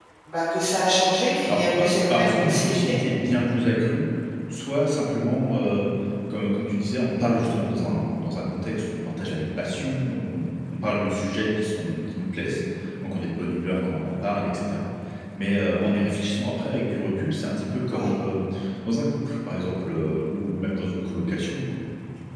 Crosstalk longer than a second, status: present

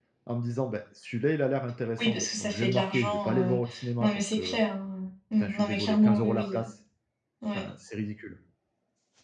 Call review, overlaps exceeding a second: present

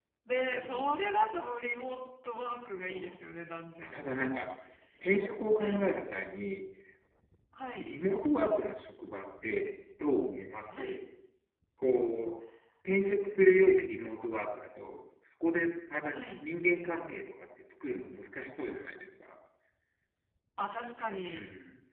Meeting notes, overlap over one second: none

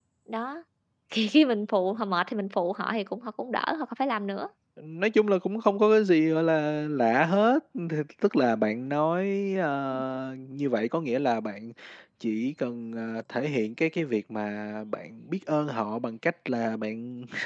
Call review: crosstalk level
none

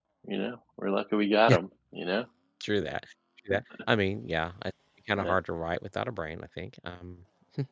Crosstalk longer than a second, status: none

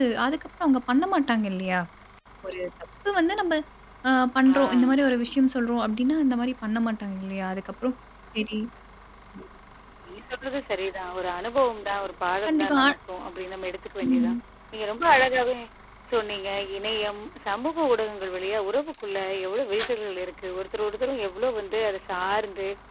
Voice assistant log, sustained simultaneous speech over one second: none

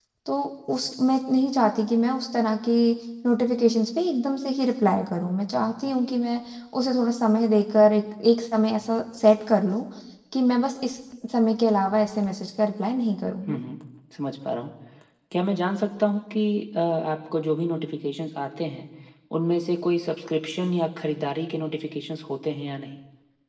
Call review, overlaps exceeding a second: none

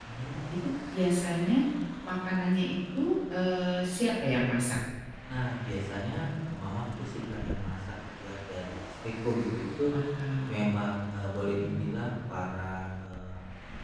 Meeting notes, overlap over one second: none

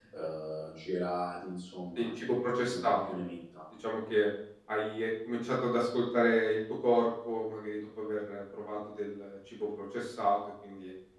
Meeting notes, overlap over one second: present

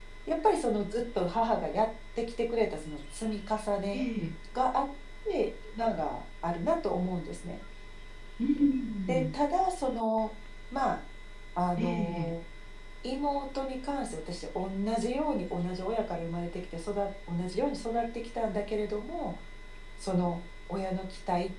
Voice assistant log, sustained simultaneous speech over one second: none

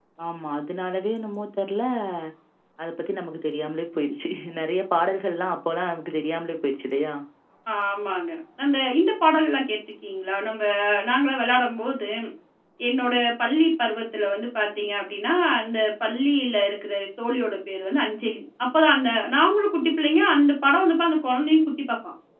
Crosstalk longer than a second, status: none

